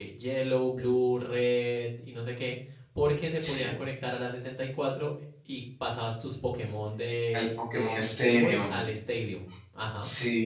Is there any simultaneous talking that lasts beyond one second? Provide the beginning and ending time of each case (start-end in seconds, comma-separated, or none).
7.3-8.8